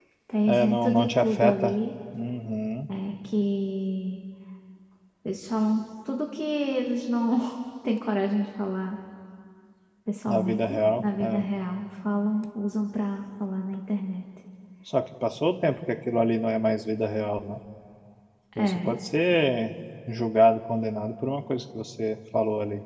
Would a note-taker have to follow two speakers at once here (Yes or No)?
Yes